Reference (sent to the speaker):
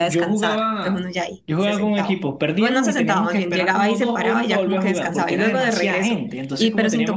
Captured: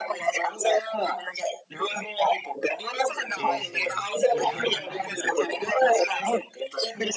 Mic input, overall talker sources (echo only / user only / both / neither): both